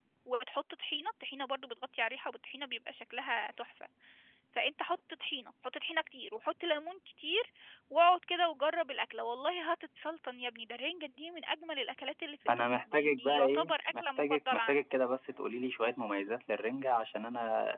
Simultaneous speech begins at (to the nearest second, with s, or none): 12 s